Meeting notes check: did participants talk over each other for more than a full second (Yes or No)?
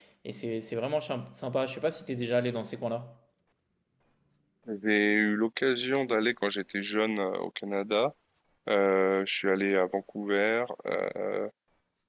No